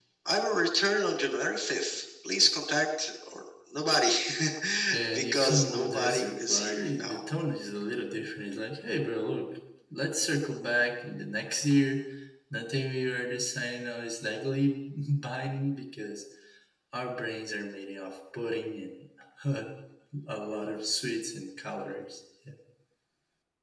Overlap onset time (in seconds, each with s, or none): 5.1 s